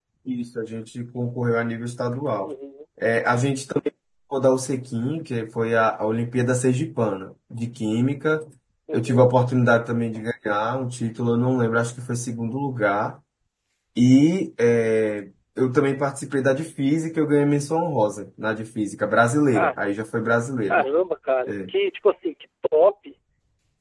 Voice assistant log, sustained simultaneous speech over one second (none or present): none